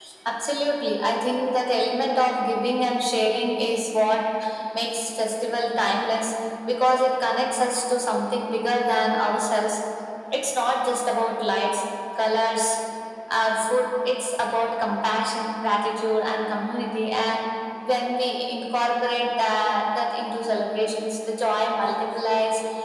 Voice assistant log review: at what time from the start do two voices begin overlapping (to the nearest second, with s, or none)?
none